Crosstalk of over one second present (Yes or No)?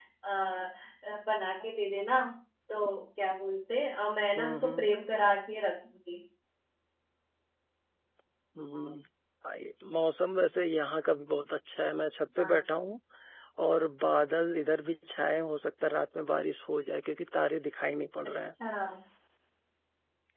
No